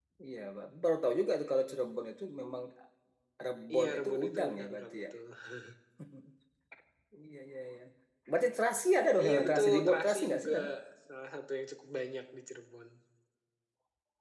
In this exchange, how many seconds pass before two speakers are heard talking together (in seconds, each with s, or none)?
3.7 s